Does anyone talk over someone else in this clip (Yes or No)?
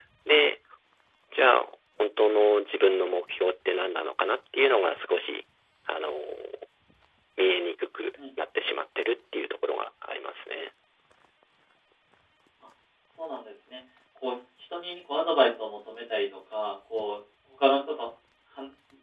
No